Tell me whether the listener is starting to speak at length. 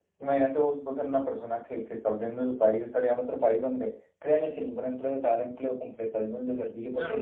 Yes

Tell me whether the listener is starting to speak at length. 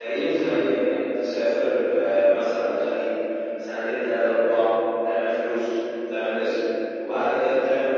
No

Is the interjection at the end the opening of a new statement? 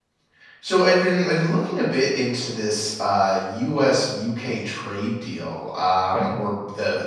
No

